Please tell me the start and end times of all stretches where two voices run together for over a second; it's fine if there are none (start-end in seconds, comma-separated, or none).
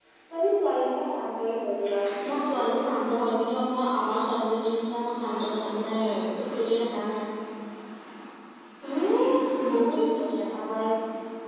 none